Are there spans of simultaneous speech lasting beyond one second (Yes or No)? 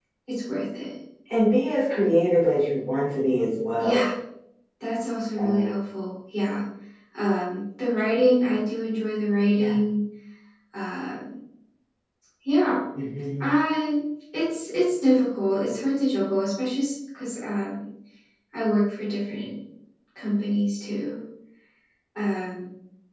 No